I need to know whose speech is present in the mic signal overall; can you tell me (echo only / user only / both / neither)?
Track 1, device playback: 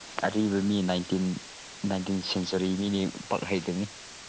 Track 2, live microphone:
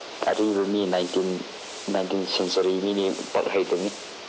echo only